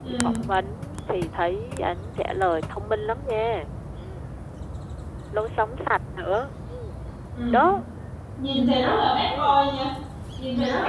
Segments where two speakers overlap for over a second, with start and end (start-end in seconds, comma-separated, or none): none